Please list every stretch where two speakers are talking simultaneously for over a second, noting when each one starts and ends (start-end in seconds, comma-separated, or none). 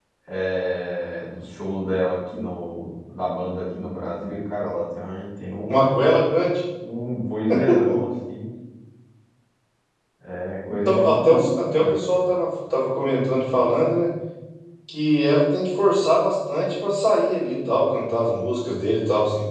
10.7-12.0